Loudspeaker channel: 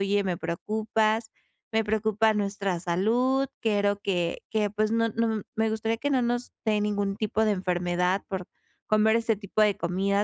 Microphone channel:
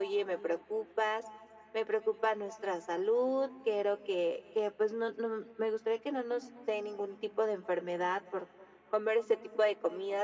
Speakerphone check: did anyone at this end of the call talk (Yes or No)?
No